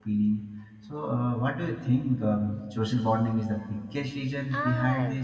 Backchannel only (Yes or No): No